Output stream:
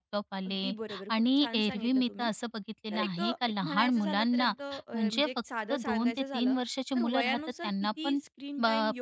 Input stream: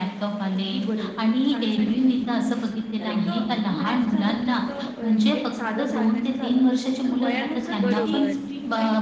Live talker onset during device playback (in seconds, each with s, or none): 7.8 s